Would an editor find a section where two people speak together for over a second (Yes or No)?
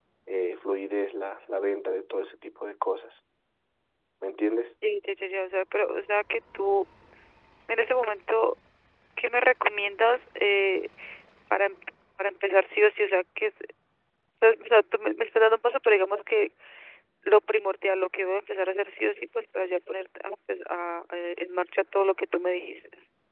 No